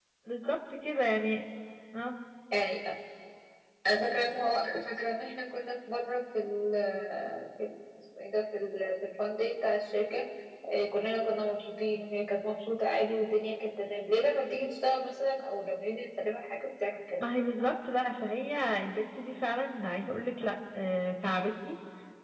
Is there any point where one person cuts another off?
No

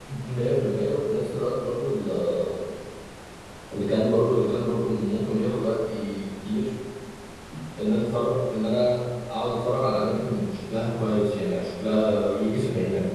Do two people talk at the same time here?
No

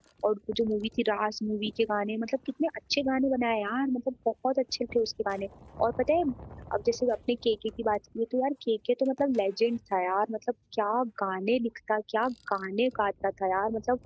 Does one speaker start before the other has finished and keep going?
No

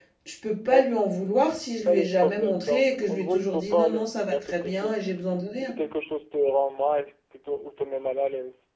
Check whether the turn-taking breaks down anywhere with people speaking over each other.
Yes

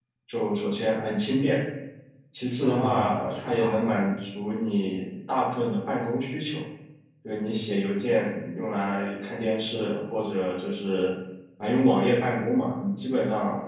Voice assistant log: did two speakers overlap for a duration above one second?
Yes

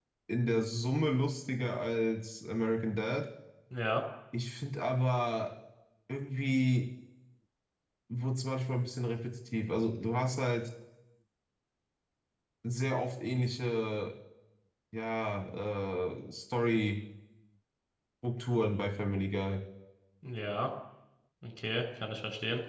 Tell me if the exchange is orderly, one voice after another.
Yes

